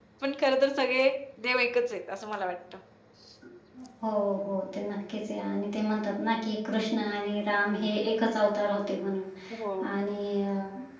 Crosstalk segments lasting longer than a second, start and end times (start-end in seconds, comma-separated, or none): none